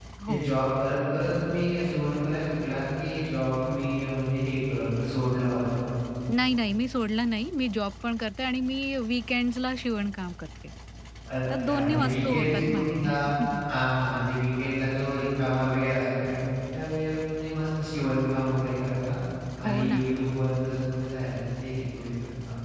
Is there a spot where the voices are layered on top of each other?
Yes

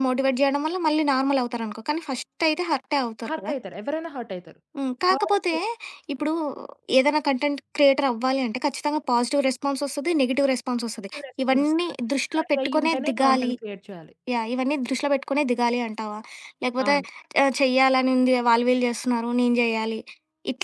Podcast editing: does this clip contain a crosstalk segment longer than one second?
Yes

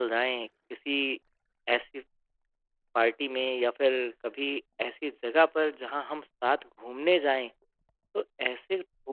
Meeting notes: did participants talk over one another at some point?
No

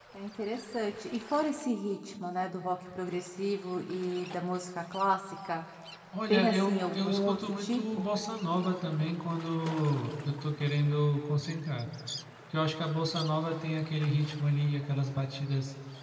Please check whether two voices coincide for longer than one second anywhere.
Yes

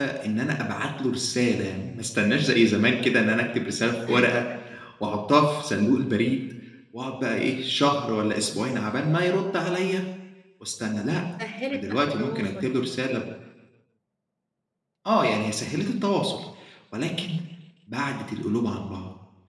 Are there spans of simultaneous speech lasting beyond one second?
Yes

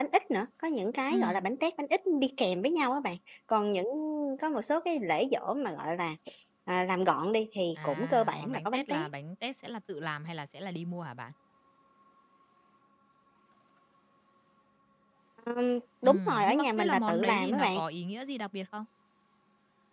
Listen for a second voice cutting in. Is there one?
Yes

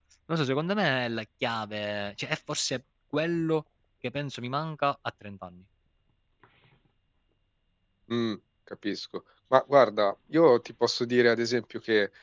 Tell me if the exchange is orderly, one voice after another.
Yes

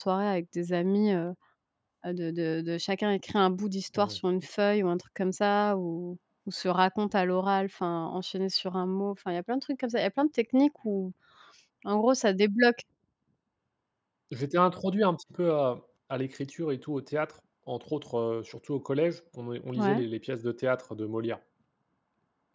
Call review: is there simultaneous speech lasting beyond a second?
No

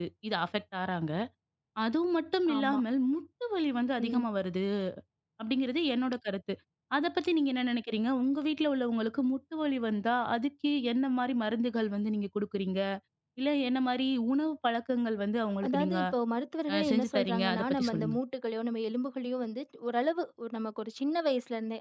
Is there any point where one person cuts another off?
Yes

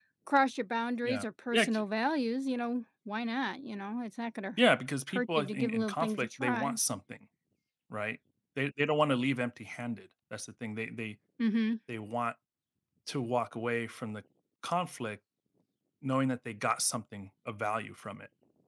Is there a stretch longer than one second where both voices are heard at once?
Yes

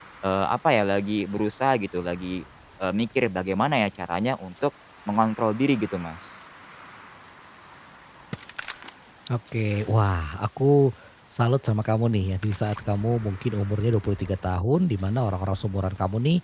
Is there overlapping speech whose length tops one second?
No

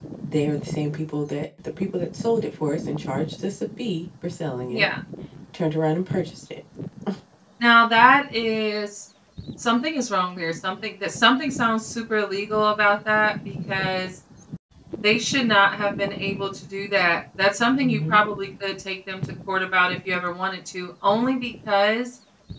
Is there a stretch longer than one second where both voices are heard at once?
No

